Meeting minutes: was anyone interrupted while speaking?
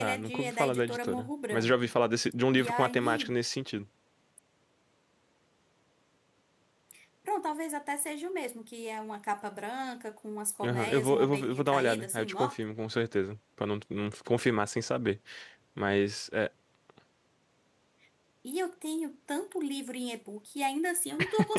Yes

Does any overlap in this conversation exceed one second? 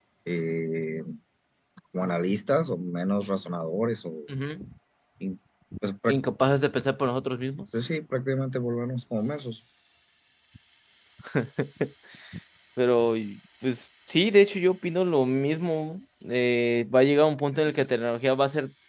No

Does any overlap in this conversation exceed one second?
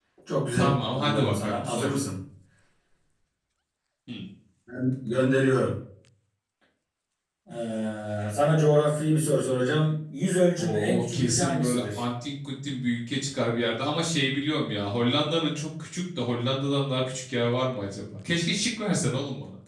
Yes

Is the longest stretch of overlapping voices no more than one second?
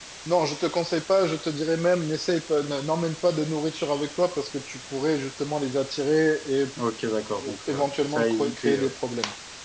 No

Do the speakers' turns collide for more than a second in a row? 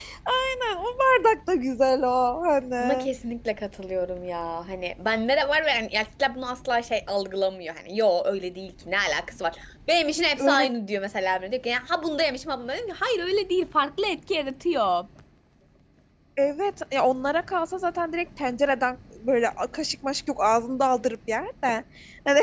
No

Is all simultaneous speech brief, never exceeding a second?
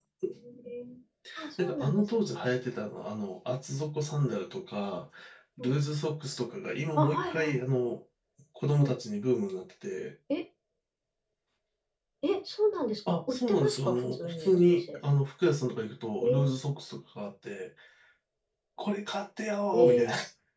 No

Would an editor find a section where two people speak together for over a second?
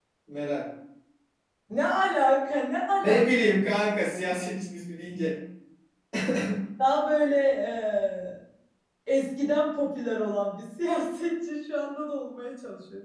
No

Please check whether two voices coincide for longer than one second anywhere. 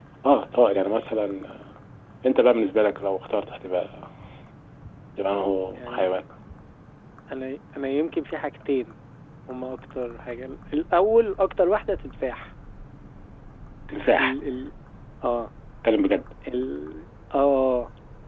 No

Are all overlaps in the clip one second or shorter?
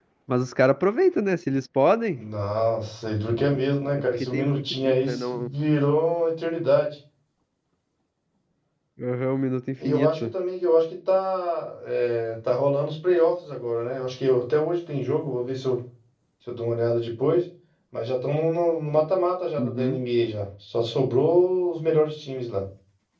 No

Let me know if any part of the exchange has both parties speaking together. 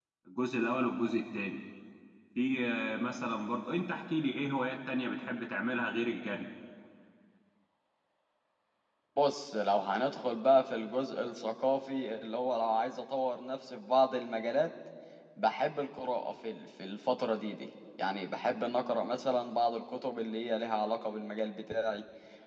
No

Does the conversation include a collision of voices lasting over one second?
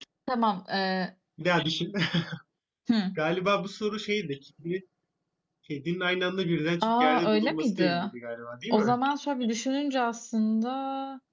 Yes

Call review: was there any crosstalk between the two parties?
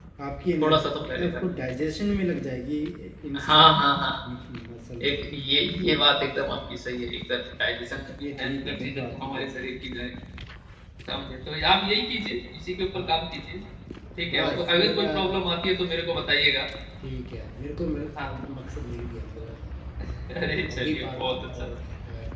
Yes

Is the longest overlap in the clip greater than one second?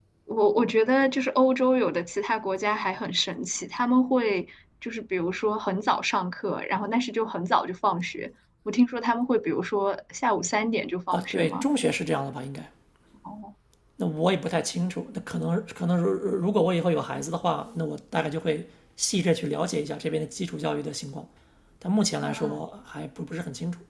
No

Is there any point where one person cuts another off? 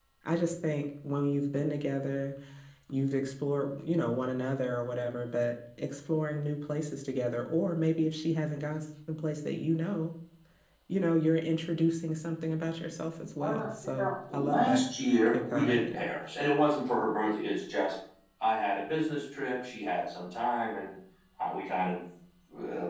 Yes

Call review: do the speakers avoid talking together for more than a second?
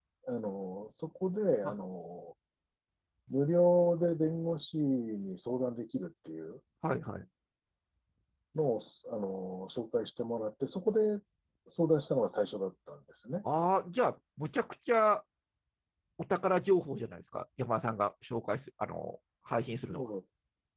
Yes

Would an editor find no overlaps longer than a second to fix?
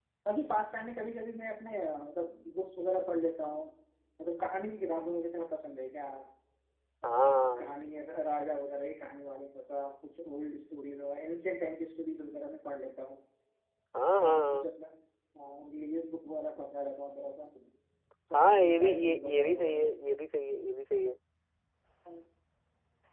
No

